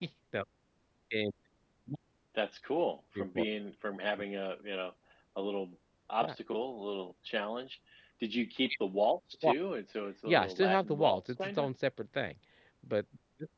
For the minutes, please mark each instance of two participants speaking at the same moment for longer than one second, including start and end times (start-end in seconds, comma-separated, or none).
10.3-11.7